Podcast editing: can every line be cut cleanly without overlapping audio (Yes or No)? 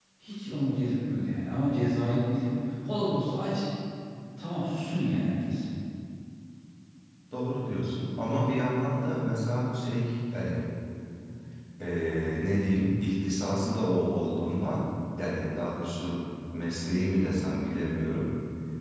Yes